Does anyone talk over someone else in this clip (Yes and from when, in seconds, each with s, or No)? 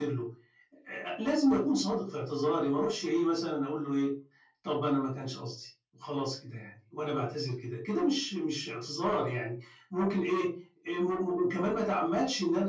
No